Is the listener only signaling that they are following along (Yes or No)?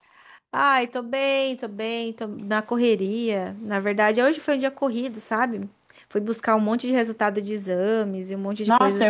No